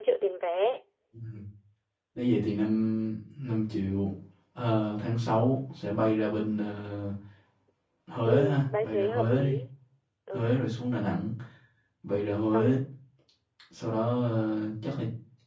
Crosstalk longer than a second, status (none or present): present